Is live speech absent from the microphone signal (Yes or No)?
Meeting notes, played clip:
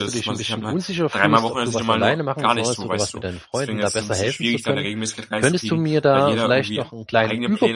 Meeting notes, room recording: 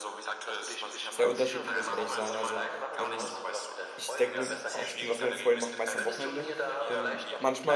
No